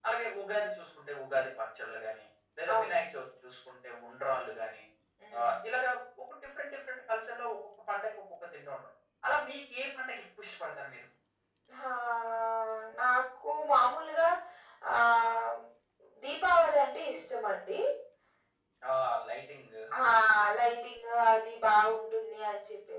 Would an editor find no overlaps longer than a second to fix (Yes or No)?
Yes